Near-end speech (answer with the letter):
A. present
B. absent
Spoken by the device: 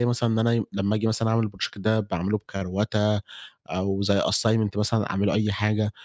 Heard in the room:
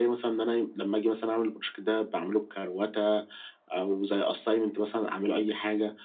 B